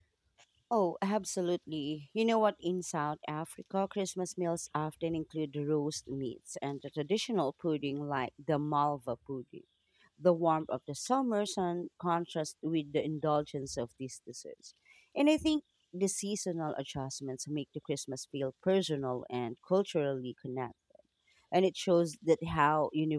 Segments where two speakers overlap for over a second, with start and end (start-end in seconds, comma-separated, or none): none